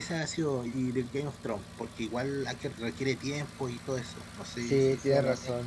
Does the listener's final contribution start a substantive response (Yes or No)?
Yes